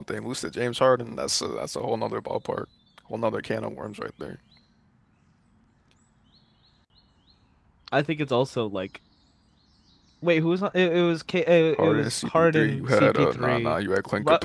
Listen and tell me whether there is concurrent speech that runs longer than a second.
Yes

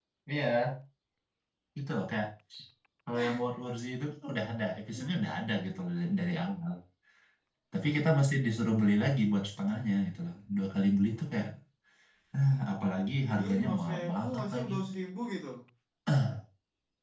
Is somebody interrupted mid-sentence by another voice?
Yes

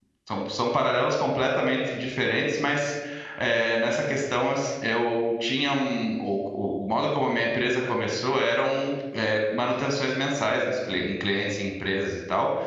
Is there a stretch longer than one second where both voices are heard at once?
No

